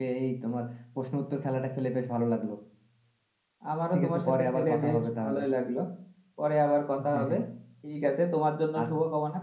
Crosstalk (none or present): present